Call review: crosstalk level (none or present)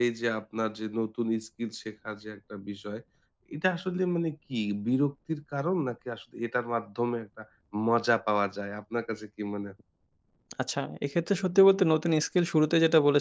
none